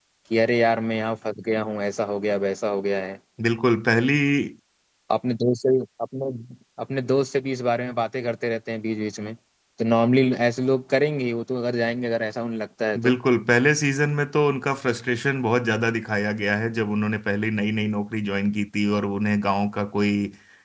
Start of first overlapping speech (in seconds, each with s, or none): none